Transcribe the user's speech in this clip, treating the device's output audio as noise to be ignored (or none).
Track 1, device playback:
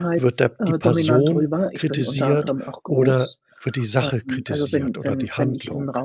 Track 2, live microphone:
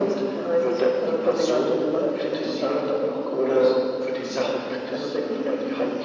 none